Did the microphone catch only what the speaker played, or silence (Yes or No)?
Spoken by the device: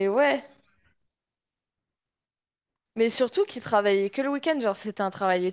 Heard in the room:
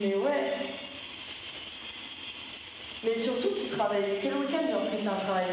Yes